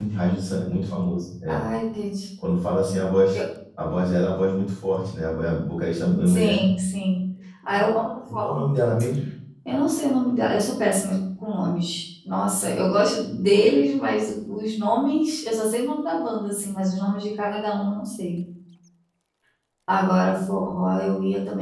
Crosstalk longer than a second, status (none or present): none